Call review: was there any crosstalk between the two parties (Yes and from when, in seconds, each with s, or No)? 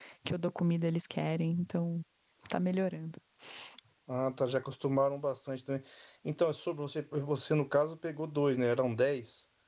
No